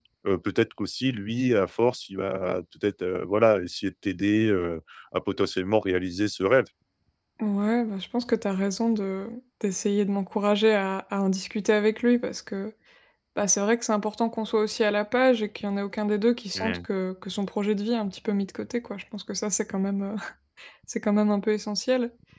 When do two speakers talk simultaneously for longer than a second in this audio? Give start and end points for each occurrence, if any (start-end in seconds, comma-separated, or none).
none